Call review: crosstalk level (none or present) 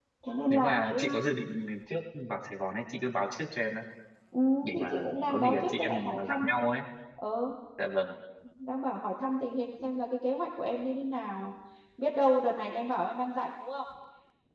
present